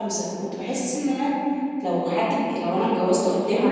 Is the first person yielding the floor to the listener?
Yes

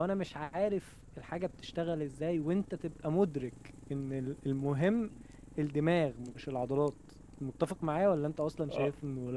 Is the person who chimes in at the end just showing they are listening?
No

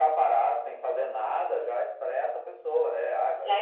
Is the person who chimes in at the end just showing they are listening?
No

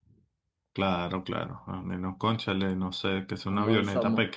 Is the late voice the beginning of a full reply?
Yes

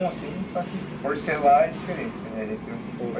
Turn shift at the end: Yes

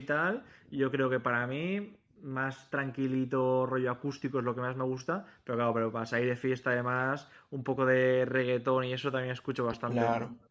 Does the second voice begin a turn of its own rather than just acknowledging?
Yes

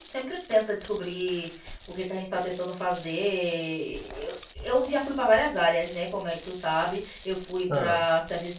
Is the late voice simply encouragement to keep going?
Yes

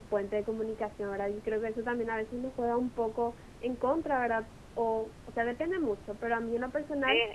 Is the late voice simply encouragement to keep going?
No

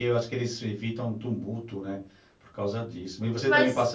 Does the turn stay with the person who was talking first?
Yes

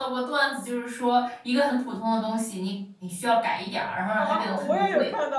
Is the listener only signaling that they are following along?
No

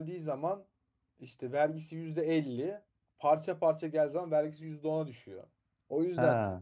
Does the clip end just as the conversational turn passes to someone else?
No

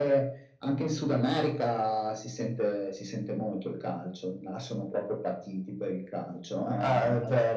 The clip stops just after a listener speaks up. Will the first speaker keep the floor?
No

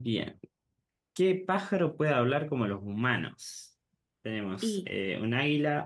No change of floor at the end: Yes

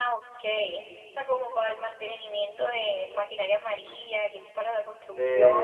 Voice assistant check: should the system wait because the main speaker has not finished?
No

